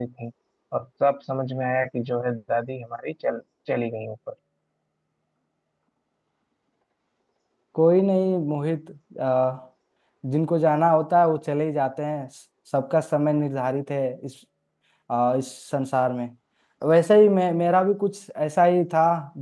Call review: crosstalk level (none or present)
none